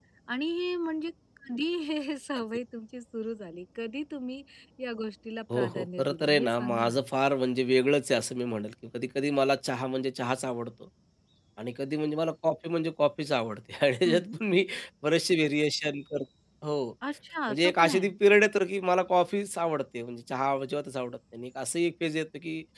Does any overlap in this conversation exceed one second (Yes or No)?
Yes